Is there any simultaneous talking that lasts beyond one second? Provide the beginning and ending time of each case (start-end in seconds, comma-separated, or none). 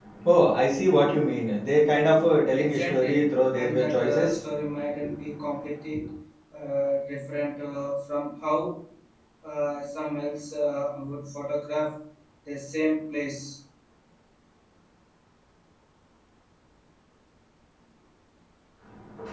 2.5-4.4